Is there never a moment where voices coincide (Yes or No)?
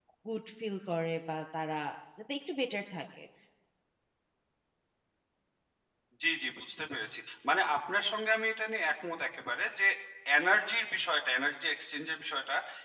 Yes